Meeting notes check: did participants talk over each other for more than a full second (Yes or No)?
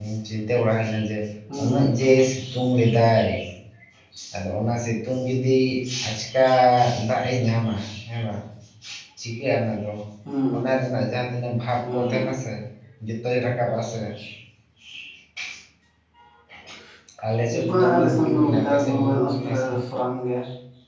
Yes